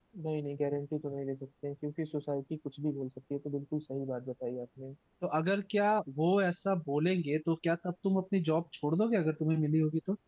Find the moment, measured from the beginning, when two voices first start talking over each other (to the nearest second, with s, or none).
none